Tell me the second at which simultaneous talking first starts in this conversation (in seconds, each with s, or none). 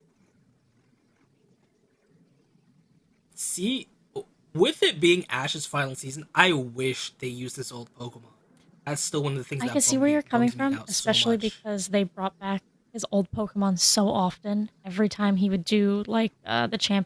9.6 s